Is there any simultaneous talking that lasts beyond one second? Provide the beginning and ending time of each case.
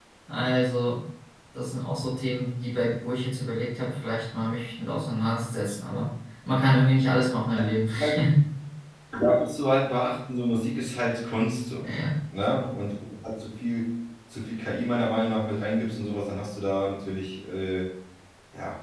none

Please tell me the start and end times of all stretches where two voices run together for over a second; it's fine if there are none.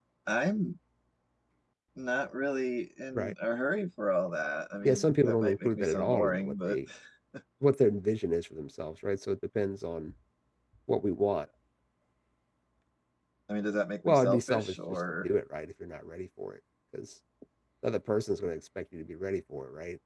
4.8-6.8, 14.0-15.3

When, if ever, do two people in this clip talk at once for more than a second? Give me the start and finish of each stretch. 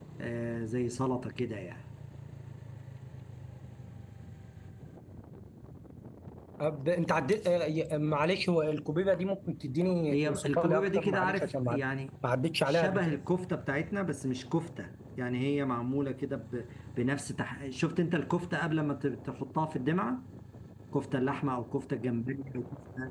10.1-11.8

